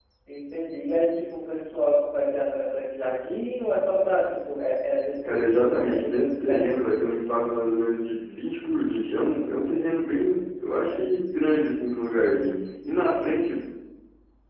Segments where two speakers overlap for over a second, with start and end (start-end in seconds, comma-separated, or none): 5.2-6.8